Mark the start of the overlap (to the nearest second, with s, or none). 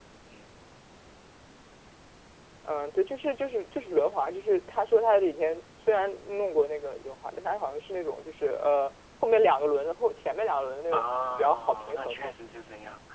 11 s